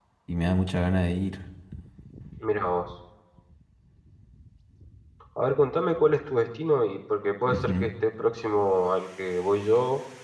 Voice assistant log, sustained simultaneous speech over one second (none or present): none